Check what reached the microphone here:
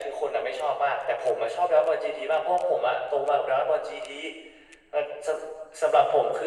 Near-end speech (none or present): none